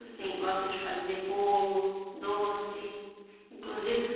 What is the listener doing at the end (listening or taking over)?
listening